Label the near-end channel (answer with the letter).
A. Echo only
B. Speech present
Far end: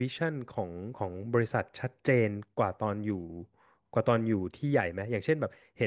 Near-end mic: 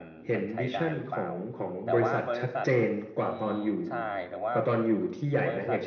B